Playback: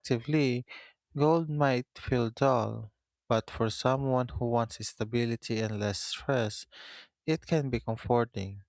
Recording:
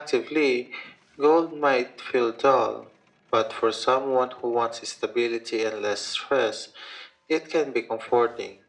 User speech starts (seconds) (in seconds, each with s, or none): none